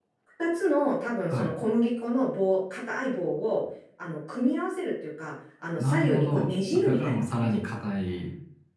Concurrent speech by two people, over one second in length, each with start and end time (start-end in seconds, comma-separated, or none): 5.8-7.6